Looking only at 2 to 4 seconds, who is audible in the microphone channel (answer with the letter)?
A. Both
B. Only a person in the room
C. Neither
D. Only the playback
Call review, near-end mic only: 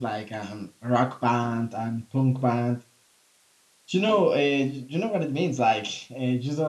B